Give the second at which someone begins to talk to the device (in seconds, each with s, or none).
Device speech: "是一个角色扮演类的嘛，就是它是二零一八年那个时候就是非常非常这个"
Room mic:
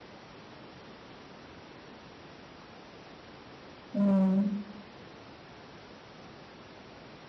3.9 s